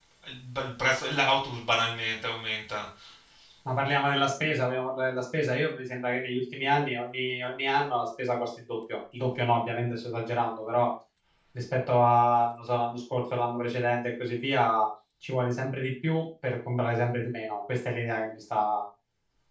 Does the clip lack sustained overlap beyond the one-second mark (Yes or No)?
Yes